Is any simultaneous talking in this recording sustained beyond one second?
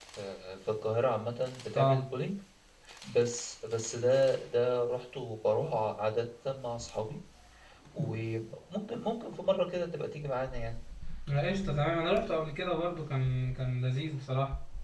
No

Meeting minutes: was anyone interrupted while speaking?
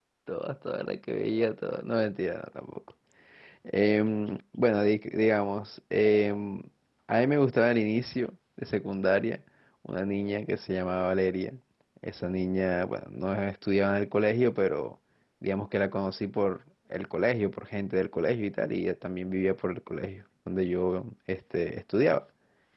No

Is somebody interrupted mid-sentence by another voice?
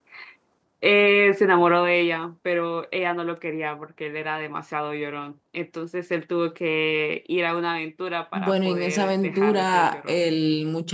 Yes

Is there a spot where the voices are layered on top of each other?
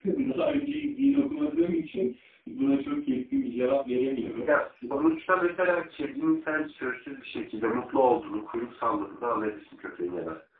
No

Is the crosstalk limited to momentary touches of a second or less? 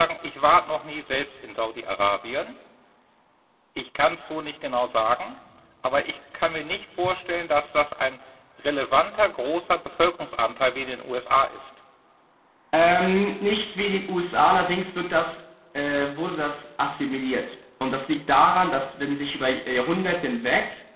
Yes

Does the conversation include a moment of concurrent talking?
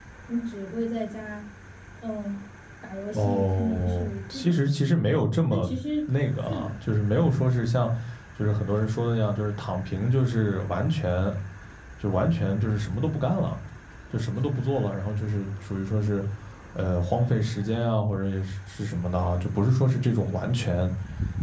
Yes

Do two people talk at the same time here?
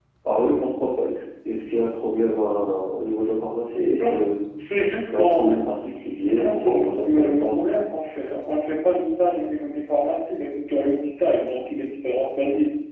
Yes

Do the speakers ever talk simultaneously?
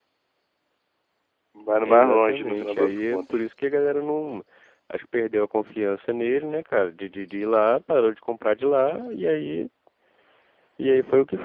Yes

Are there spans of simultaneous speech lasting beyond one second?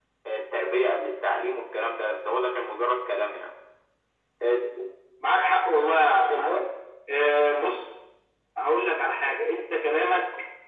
No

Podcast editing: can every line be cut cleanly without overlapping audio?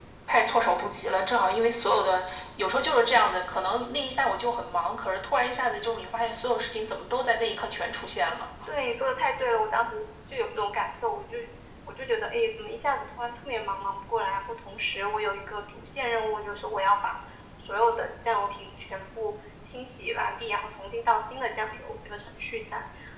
Yes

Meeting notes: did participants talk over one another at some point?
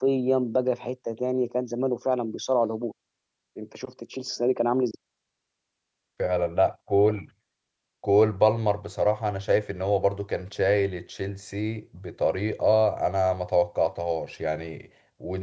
No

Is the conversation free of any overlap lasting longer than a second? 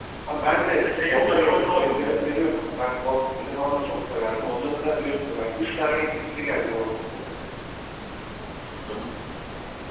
No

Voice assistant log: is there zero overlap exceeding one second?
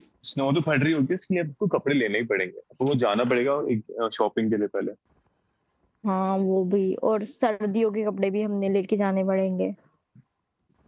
Yes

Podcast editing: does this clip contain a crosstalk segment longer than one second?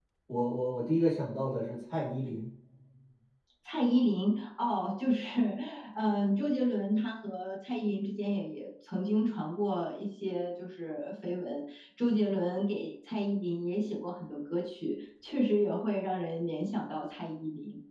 No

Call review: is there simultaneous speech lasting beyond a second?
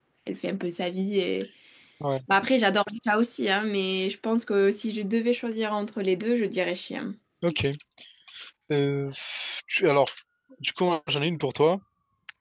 No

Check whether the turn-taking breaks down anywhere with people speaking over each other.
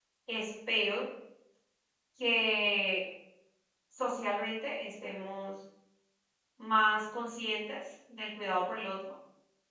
No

